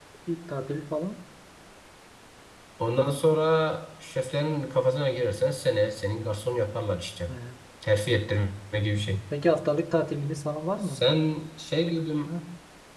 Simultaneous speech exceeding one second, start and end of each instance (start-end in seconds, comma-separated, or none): none